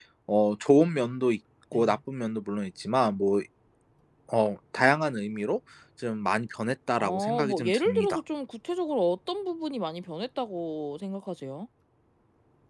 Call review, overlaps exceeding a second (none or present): present